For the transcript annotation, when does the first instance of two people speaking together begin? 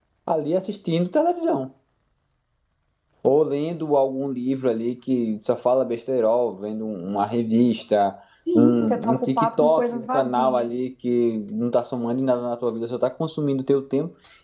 8.6 s

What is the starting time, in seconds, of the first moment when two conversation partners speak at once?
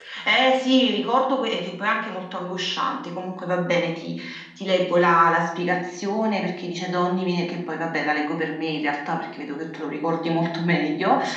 none

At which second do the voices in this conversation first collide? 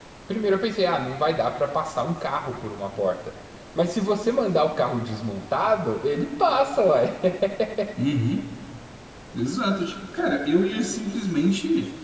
none

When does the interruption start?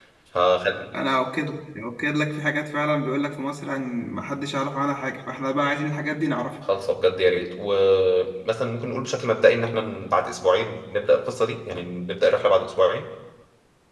none

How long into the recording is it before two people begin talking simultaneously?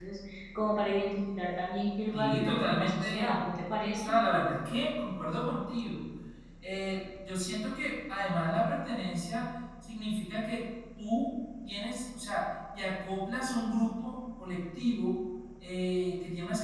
2.1 s

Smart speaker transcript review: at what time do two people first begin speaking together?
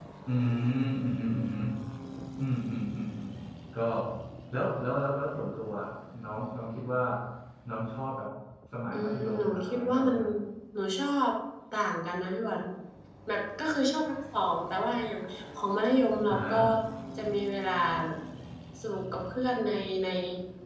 8.9 s

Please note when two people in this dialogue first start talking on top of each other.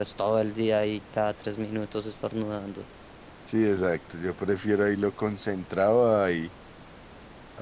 none

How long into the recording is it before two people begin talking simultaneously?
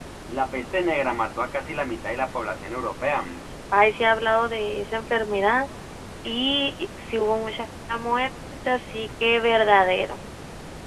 none

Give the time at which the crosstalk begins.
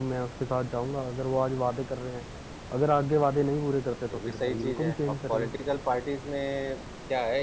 4.1 s

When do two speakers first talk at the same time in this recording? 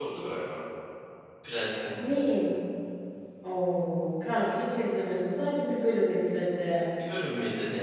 none

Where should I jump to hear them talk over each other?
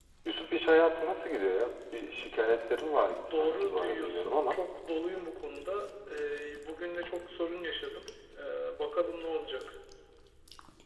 3.1 s

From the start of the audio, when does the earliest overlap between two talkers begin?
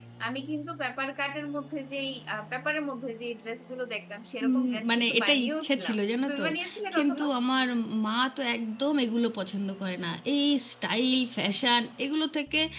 4.4 s

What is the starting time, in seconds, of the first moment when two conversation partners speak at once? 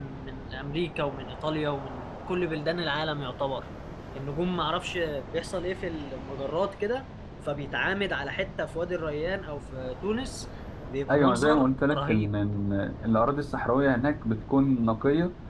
11.1 s

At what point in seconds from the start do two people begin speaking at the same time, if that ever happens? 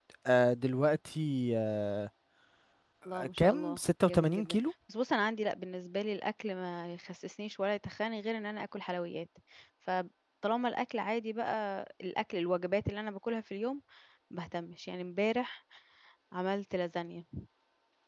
3.4 s

